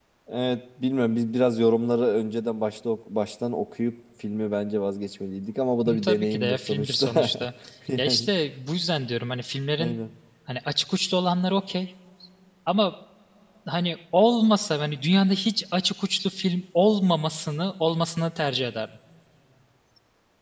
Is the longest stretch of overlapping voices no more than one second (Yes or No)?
No